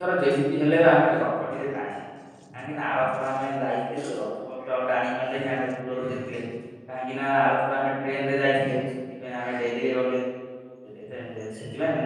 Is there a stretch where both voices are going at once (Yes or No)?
No